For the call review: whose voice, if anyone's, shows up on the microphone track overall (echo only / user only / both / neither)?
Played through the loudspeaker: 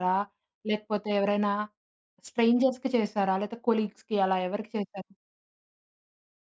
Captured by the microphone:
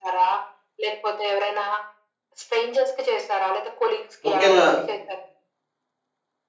both